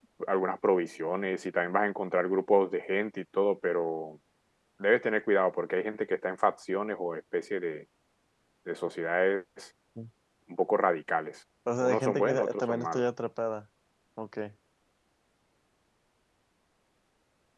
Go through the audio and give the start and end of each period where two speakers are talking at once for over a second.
11.8-13.0

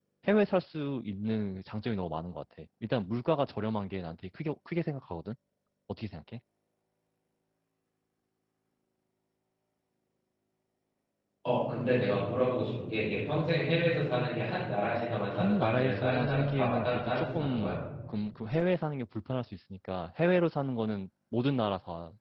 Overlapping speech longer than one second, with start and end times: 15.3-17.8

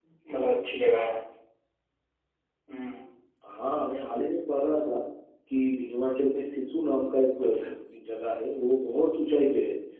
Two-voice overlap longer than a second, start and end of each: none

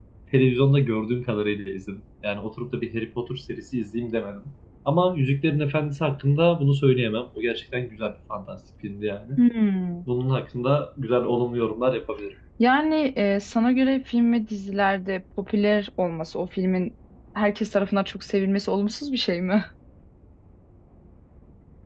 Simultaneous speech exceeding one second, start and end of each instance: none

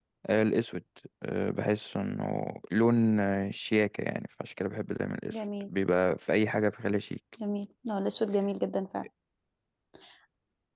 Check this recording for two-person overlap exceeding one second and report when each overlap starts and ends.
none

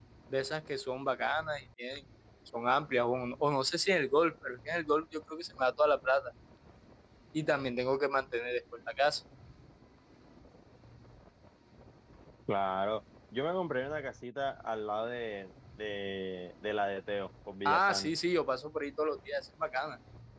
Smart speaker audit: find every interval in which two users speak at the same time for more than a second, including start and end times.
none

